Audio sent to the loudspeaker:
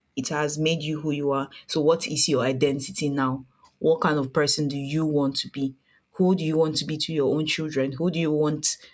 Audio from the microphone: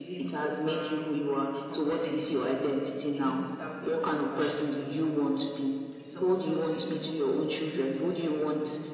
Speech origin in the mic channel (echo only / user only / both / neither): both